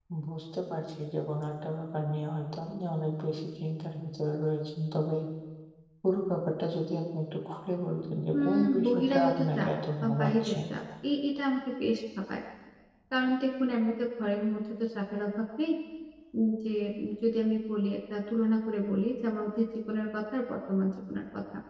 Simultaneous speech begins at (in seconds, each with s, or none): 8.3 s